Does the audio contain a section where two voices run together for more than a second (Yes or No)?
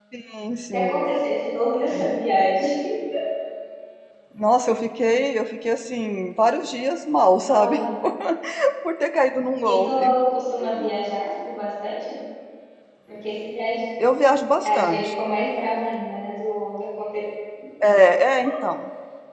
No